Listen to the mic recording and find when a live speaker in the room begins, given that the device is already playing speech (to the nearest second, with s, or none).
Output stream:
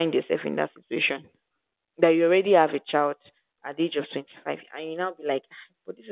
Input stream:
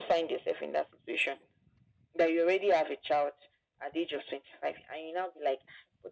none